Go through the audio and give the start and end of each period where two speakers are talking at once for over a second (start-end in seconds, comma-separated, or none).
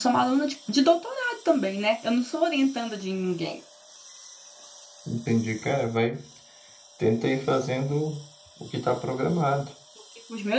none